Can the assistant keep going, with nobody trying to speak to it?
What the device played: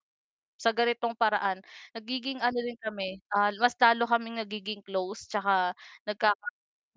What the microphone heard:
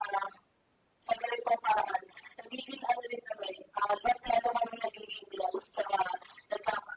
Yes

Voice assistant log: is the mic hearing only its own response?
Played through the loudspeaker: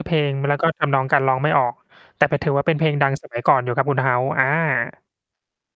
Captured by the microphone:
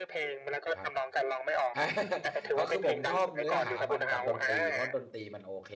No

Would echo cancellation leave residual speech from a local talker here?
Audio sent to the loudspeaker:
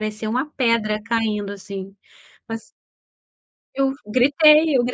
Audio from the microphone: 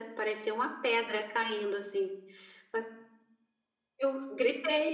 No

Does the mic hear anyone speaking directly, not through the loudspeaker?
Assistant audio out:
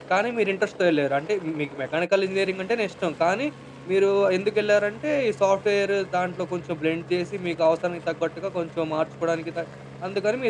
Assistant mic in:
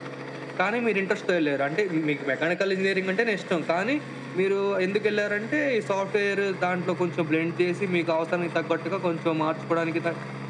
No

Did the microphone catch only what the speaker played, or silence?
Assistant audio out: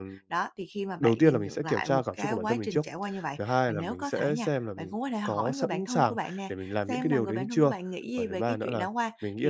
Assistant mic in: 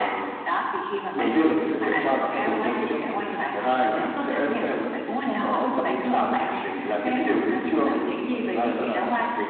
Yes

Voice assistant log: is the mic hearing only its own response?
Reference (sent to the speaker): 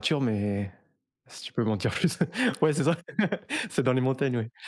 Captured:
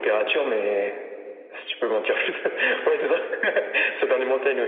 Yes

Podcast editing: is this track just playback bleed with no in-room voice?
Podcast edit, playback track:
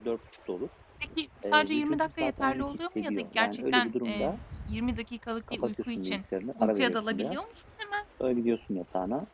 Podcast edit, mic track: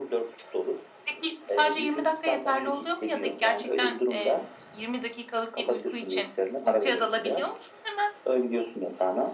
Yes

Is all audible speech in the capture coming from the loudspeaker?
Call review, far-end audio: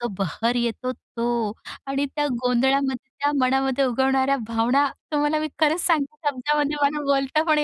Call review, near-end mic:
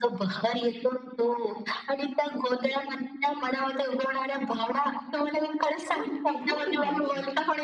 No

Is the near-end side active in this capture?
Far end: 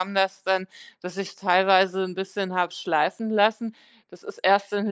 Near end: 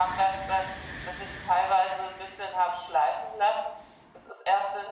No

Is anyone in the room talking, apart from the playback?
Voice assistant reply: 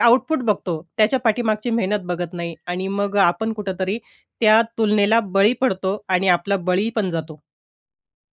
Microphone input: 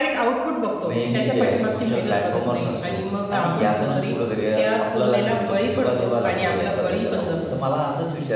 Yes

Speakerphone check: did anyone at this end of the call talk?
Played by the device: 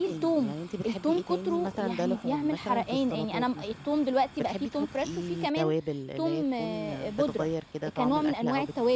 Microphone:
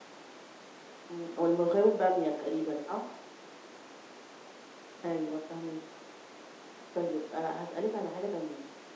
Yes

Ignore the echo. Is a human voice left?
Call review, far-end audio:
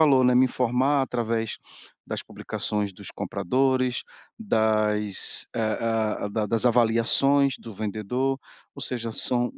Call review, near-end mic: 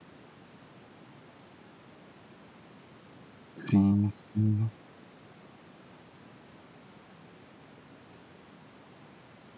Yes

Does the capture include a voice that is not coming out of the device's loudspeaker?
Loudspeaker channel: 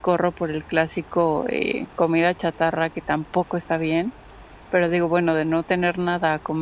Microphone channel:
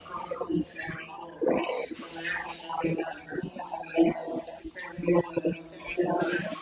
No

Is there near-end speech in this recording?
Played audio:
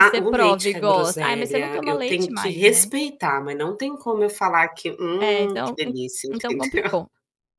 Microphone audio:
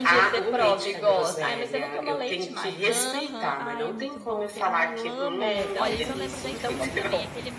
Yes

